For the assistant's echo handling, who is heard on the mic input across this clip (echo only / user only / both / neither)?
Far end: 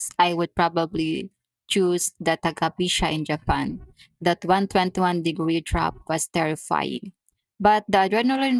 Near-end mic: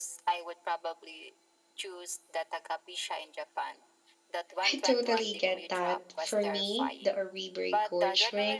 both